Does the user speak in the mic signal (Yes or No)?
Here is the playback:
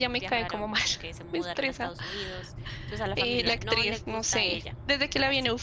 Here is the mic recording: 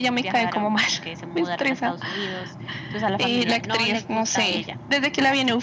No